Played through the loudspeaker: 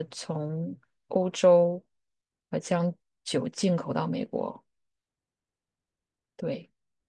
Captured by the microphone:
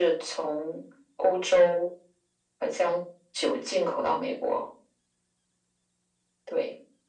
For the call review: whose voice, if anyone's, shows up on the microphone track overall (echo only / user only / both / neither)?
echo only